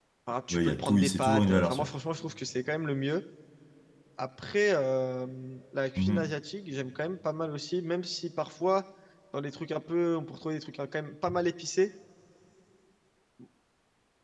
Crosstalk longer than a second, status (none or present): present